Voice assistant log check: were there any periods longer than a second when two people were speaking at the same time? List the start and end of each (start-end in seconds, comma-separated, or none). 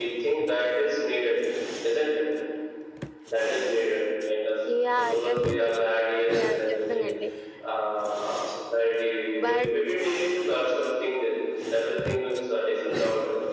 5.0-7.0